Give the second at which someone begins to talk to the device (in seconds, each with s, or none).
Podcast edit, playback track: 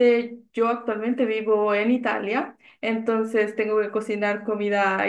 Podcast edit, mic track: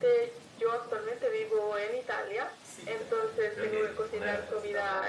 2.6 s